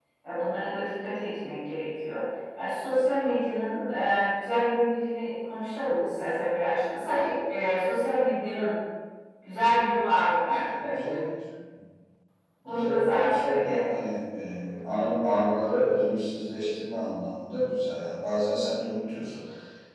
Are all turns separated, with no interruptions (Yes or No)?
No